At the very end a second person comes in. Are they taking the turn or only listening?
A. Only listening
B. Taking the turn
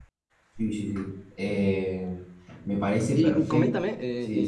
B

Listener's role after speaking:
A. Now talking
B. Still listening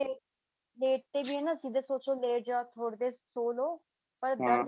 B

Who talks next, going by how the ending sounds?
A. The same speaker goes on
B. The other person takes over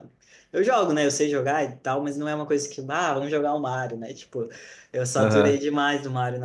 A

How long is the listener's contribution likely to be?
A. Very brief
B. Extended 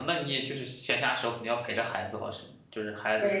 B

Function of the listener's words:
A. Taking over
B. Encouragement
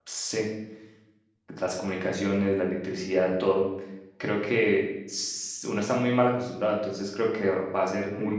A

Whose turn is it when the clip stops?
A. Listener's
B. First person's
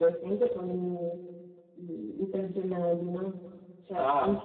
B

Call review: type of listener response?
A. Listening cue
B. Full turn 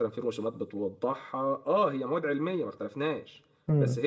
A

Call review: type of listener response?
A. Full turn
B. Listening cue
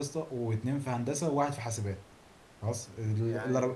B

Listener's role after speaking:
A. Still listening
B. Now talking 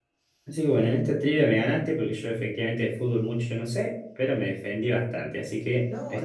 B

